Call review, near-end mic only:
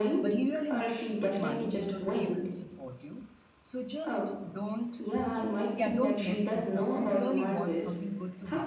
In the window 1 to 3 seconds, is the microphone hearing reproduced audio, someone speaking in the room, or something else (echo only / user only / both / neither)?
both